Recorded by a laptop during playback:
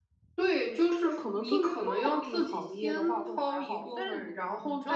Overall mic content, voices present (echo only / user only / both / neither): both